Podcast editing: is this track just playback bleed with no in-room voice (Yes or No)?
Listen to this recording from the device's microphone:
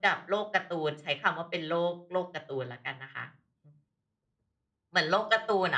Yes